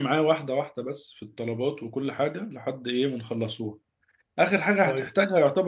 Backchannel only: Yes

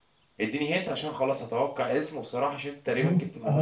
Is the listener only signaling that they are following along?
No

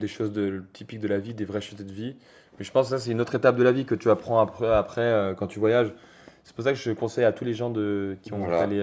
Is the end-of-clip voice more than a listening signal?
No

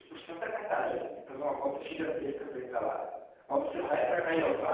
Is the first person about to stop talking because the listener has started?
No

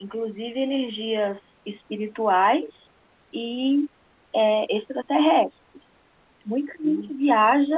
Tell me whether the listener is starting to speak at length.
No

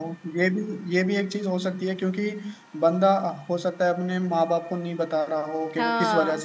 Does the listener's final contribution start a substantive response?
No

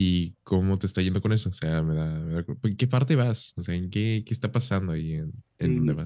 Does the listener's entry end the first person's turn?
Yes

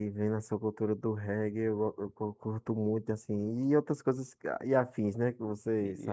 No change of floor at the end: No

